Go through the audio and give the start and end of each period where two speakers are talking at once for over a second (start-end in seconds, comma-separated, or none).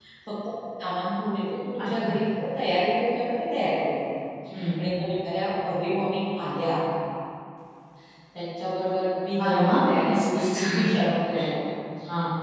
9.4-10.8